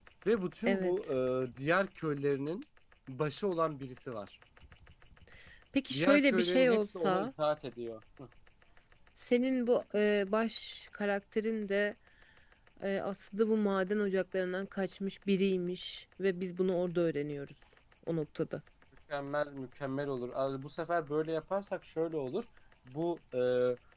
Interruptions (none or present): present